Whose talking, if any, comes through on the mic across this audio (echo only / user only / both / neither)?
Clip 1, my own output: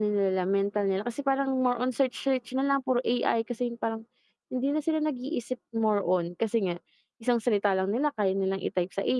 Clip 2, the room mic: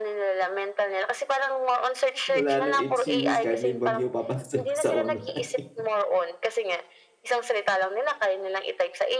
both